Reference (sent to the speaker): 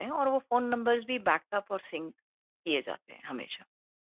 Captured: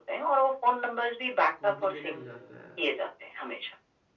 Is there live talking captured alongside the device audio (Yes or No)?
Yes